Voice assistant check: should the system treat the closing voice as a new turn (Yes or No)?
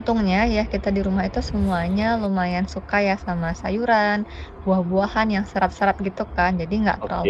No